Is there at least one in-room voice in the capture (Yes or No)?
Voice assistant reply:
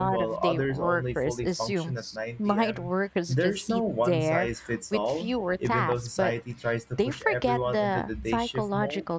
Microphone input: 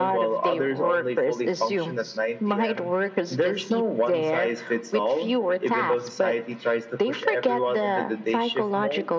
No